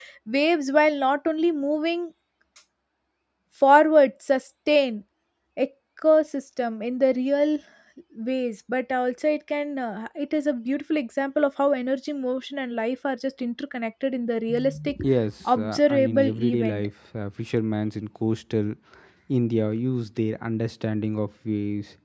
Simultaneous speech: Yes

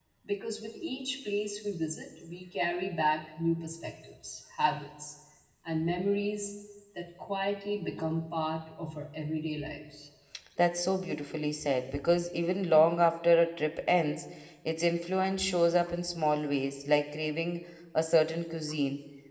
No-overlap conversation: Yes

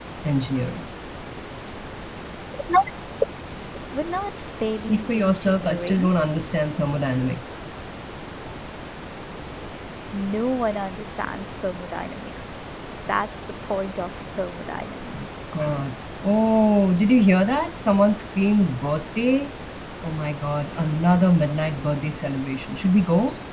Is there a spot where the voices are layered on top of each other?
Yes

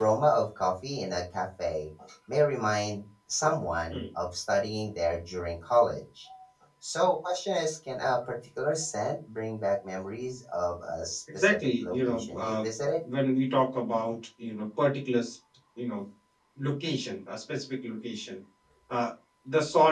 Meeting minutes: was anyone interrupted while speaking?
Yes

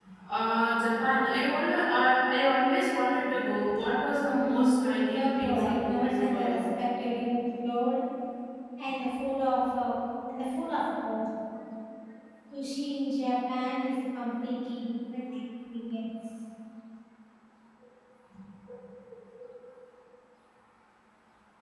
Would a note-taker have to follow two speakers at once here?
Yes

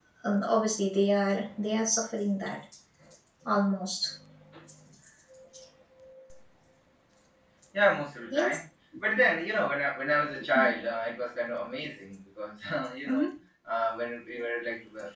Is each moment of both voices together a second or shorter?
Yes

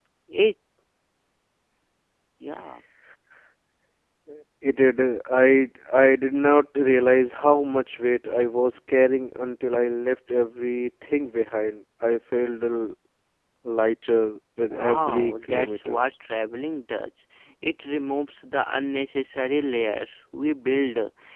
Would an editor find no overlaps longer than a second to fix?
No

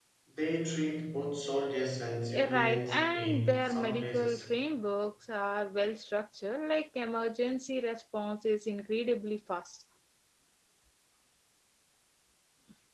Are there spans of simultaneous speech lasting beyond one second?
Yes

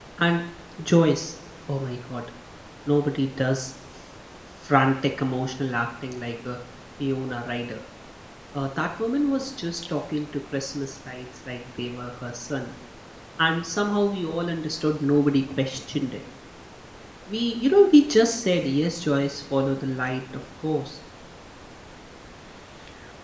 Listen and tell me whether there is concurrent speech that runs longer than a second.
No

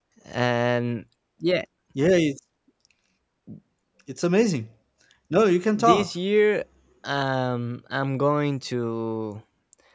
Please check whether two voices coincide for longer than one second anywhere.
No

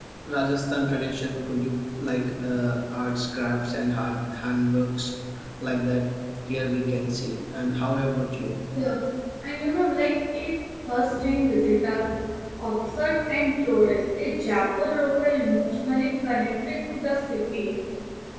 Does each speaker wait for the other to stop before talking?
Yes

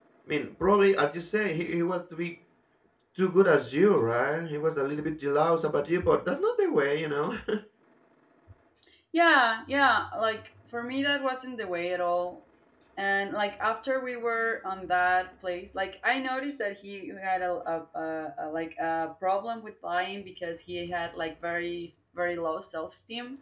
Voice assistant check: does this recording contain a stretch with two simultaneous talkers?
No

